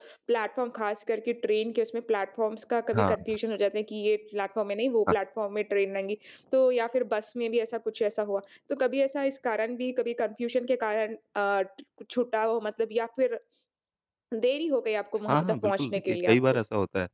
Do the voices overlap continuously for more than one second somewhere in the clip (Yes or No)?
Yes